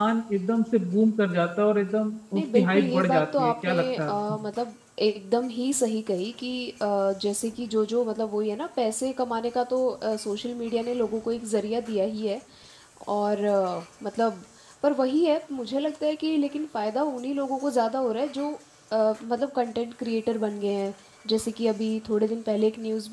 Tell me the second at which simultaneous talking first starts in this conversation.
2.3 s

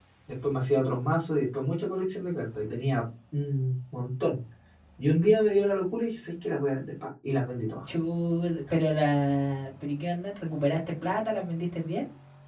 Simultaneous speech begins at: none

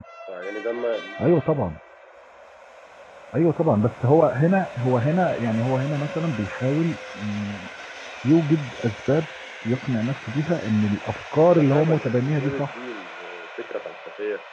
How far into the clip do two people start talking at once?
11.5 s

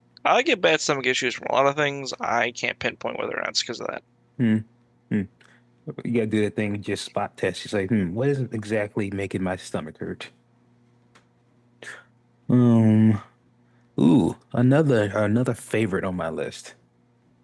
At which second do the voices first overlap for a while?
none

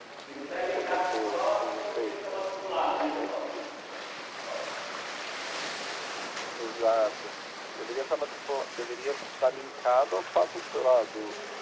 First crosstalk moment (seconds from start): 0.5 s

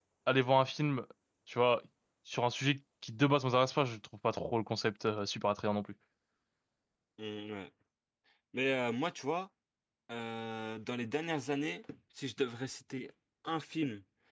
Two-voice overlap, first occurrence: none

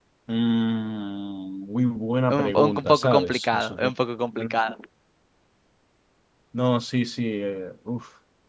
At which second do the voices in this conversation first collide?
2.3 s

